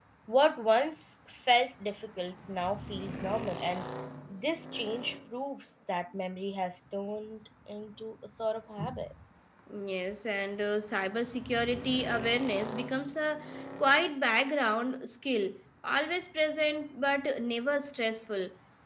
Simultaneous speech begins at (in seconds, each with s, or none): none